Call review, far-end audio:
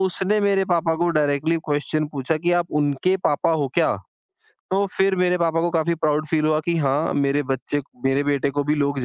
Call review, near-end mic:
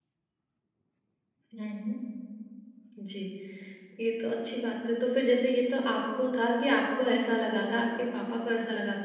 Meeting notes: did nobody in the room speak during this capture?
No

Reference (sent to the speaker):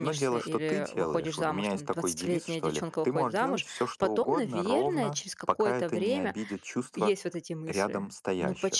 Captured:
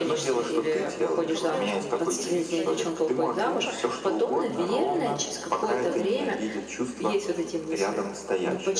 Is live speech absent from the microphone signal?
No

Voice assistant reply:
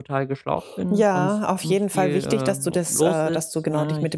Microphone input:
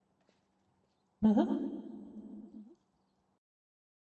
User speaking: Yes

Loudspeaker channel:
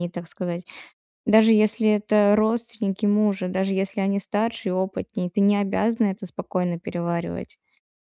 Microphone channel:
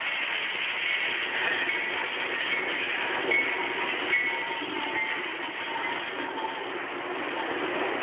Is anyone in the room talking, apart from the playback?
No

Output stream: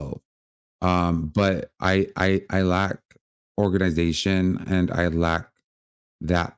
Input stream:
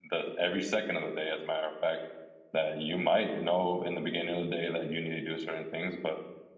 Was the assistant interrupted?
Yes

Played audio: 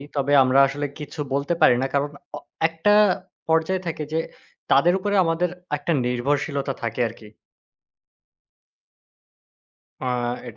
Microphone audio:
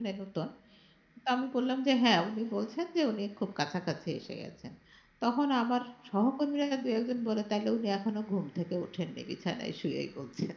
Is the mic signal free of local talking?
No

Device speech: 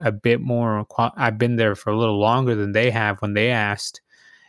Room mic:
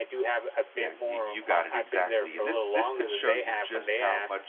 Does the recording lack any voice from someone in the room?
No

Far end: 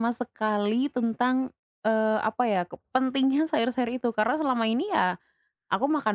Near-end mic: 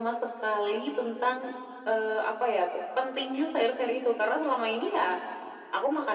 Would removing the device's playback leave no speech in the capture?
Yes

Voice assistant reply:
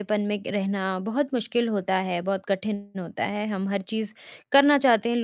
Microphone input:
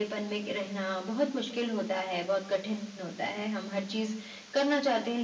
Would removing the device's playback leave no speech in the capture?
Yes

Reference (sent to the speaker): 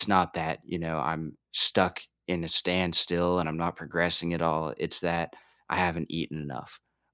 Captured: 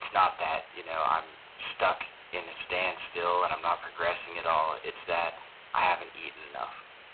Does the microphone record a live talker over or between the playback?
No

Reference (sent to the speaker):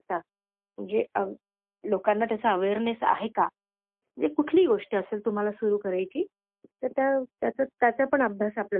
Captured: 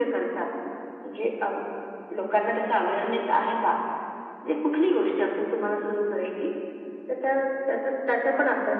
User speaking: No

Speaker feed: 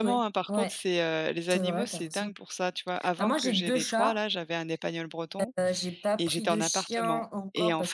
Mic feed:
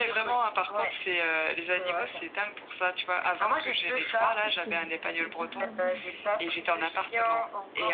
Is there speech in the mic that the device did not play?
Yes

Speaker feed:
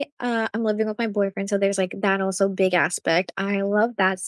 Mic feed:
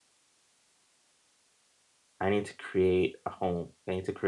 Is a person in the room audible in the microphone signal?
Yes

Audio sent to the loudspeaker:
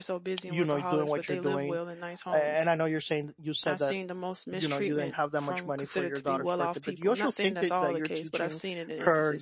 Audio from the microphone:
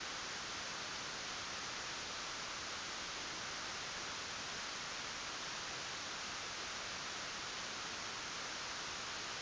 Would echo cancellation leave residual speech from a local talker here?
No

